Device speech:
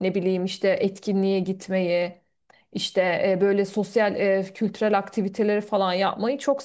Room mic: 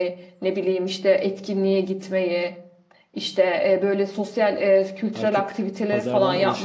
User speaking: Yes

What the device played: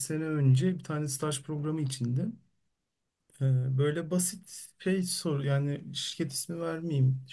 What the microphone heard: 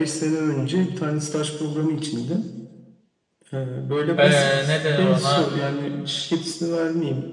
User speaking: Yes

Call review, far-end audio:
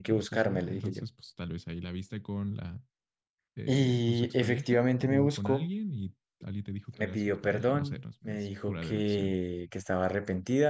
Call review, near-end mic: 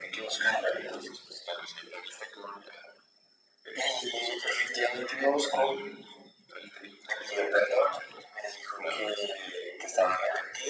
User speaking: No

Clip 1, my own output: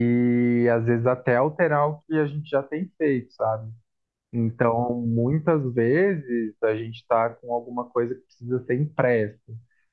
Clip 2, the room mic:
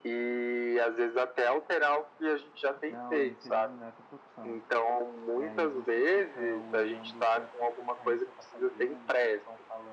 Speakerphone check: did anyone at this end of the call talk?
Yes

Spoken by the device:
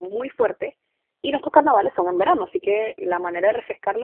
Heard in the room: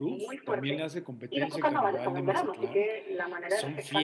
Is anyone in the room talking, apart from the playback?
Yes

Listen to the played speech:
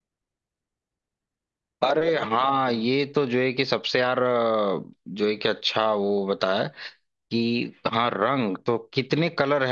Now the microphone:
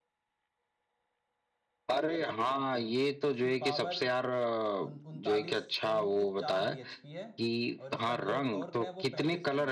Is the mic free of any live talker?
No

